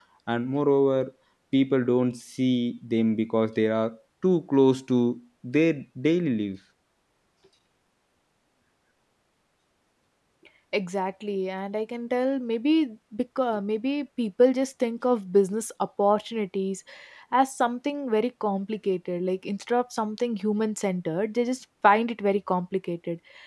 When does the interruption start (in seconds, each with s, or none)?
none